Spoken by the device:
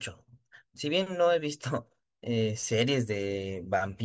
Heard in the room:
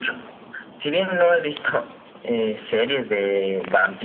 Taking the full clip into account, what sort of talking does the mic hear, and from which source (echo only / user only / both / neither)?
echo only